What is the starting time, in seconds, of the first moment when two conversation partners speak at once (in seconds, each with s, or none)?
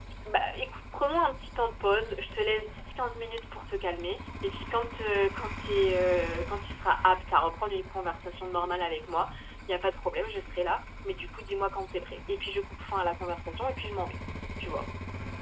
none